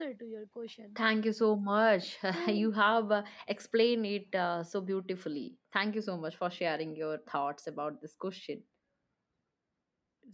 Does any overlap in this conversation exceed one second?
No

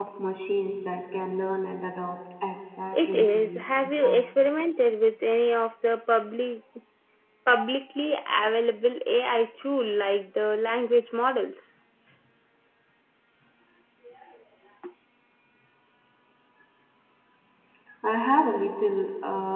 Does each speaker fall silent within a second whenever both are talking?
No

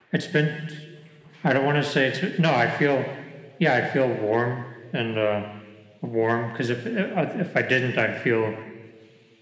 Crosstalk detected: No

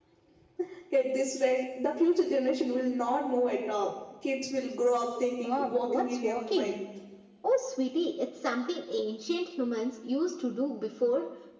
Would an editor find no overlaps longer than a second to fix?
No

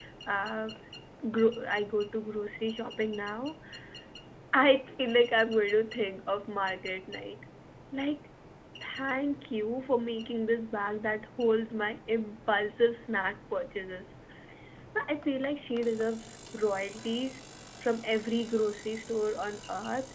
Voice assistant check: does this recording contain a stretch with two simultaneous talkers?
No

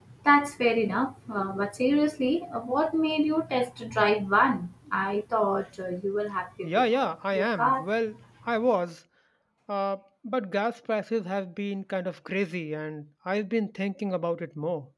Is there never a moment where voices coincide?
No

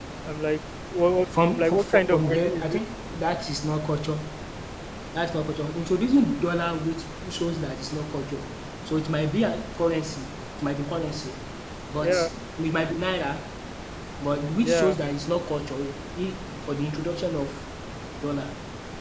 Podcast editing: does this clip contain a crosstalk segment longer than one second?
Yes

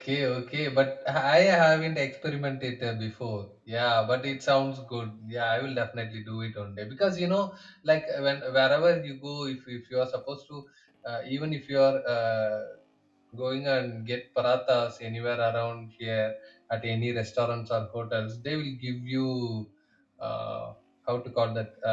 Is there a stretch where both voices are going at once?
No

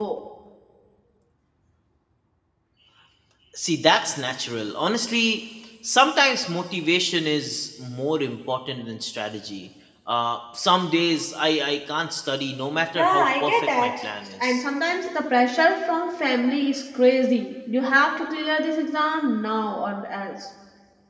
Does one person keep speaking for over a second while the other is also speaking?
Yes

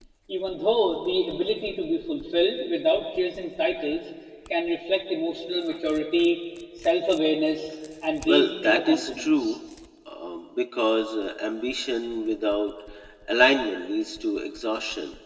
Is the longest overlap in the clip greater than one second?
Yes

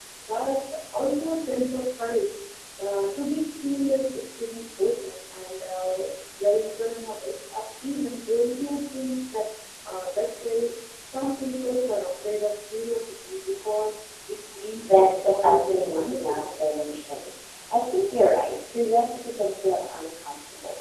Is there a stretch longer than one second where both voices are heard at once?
Yes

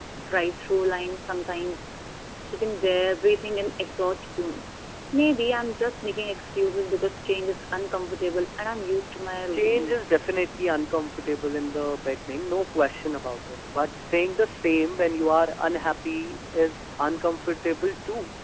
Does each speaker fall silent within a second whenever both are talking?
Yes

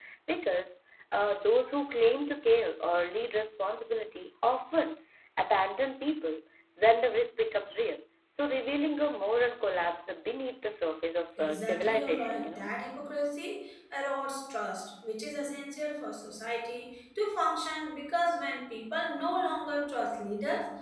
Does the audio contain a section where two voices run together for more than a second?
Yes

